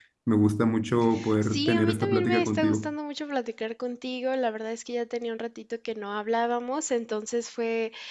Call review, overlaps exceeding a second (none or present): present